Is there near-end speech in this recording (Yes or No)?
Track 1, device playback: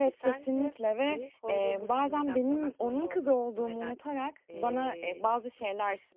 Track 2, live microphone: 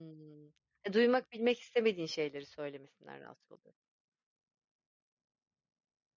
Yes